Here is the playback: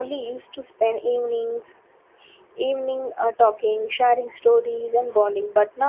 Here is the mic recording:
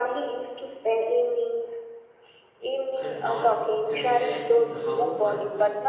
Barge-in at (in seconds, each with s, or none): 2.9 s